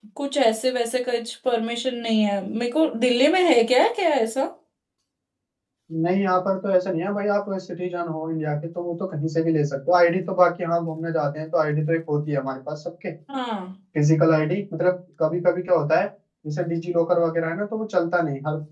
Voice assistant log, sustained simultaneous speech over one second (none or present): none